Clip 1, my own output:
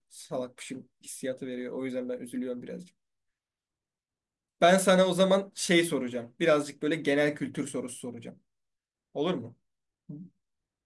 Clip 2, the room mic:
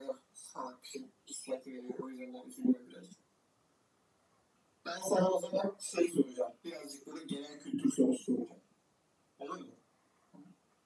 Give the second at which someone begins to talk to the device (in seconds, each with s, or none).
none